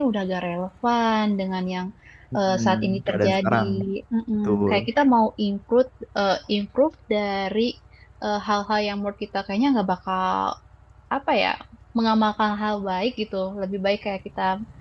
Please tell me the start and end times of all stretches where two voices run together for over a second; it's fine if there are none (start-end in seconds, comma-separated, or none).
2.4-3.6